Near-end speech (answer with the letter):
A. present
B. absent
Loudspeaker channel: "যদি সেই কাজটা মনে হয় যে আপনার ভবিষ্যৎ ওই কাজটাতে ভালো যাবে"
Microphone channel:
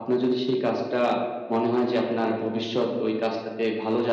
B